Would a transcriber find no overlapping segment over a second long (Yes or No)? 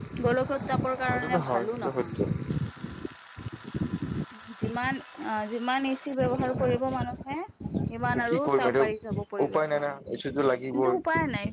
No